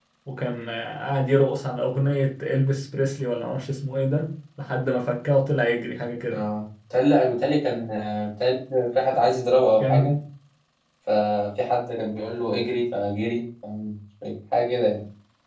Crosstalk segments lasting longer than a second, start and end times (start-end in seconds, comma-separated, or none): none